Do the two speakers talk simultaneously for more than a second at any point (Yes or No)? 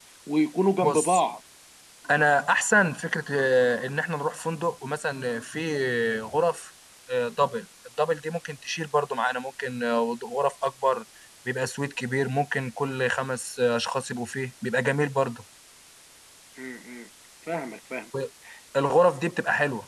No